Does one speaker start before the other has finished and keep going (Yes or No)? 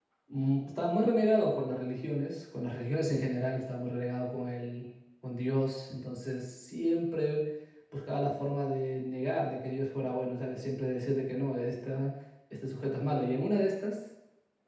No